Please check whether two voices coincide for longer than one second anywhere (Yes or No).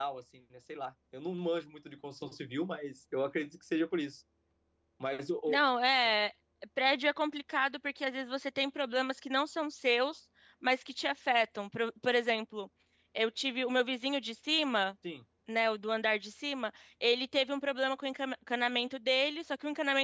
No